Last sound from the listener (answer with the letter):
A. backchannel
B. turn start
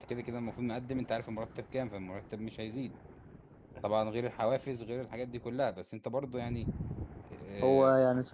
B